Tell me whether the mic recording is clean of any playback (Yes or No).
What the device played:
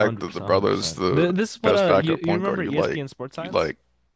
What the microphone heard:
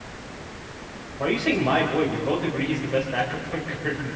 Yes